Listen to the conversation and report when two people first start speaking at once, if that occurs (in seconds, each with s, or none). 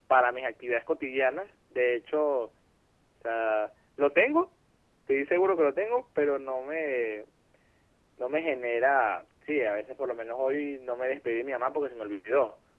none